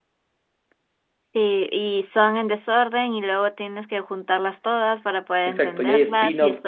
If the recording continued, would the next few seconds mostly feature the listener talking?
Yes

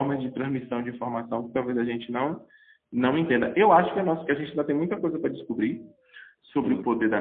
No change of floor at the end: Yes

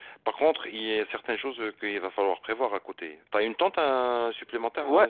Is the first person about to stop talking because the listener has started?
Yes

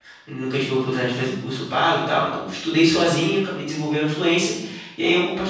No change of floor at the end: Yes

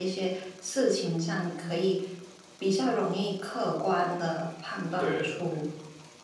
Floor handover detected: No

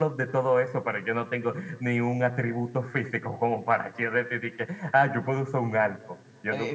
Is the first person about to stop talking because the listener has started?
Yes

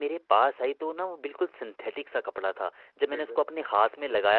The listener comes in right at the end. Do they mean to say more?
No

